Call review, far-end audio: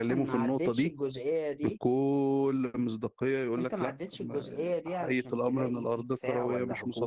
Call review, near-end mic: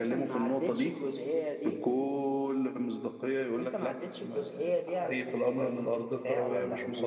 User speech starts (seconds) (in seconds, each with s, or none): none